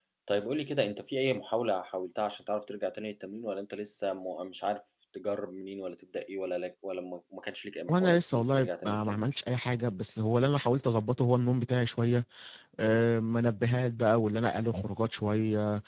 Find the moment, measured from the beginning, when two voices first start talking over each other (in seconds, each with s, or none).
7.9 s